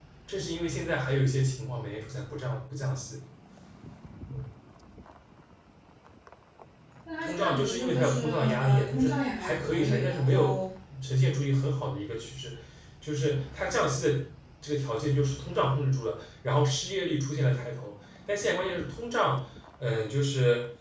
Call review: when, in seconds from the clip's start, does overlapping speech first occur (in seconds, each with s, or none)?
7.2 s